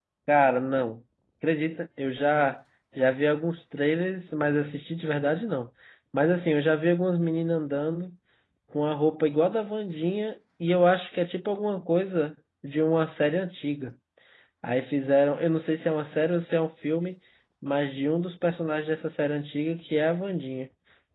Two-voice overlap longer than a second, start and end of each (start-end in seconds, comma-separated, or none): none